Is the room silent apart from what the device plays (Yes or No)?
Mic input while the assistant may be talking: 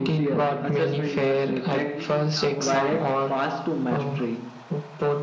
No